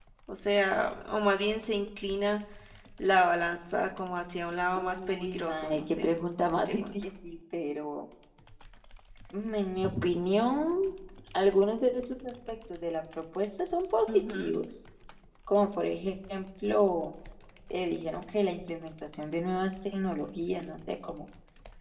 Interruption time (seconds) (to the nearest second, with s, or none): 5 s